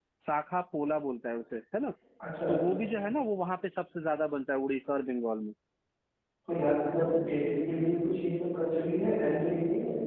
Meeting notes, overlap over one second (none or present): none